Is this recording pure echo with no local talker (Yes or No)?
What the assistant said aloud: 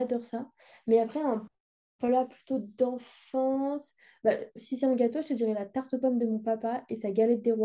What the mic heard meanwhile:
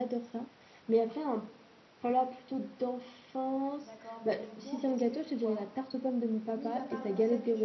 No